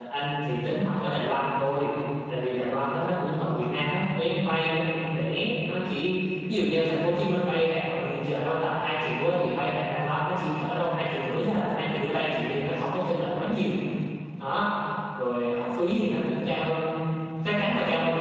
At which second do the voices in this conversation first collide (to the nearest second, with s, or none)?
none